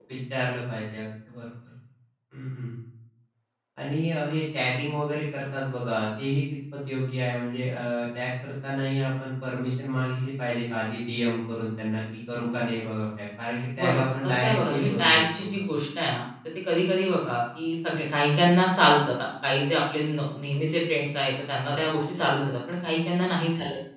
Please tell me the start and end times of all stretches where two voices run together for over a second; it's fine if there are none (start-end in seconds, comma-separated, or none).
13.8-15.5